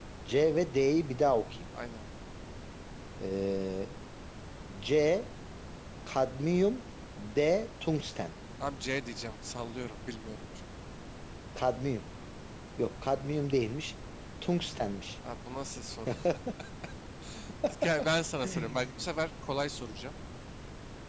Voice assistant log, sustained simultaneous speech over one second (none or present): none